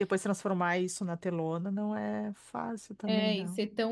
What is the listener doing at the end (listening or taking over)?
taking over